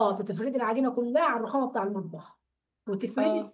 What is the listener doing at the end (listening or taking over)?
listening